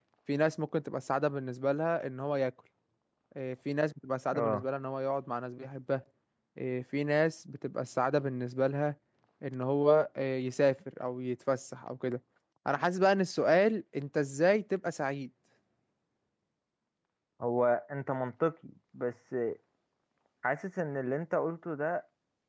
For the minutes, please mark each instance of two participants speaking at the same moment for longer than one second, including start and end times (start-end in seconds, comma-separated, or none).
none